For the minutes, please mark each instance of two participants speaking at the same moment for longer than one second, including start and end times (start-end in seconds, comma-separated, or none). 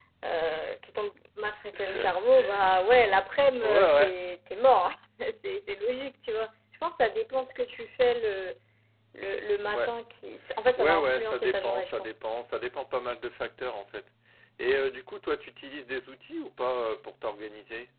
10.8-12.1